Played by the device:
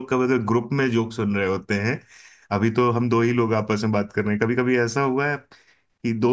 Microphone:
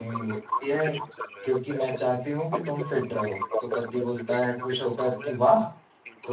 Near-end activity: present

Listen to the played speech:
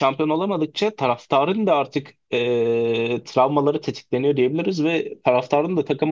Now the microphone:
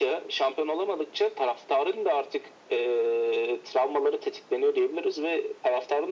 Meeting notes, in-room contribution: none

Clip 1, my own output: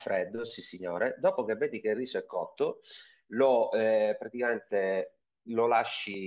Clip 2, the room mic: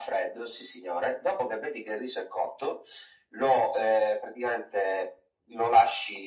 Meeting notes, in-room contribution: none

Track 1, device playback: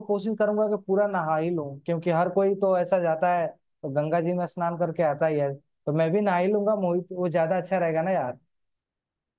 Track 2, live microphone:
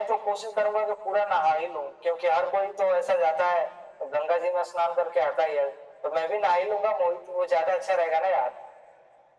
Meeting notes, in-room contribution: none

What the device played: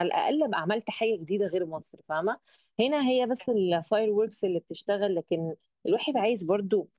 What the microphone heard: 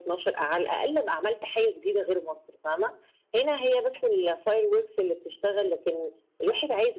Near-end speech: none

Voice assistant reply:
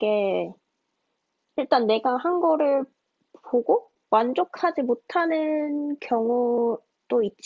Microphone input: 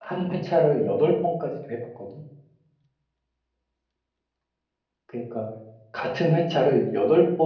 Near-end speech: present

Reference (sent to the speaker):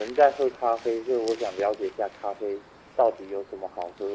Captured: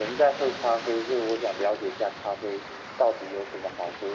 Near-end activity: none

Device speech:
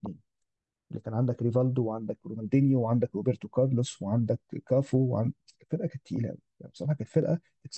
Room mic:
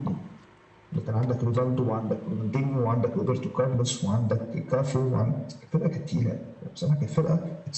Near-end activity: none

